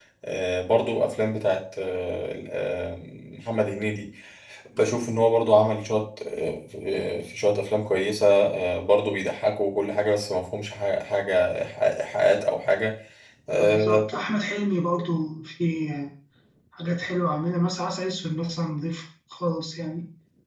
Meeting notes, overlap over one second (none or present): none